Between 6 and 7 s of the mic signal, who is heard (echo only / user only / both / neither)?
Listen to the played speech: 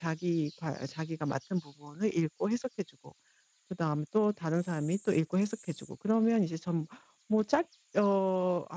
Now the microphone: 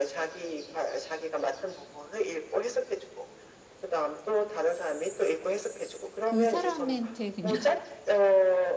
both